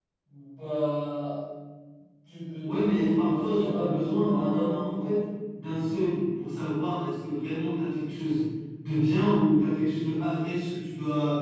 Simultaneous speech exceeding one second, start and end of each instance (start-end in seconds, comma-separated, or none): 2.6-5.1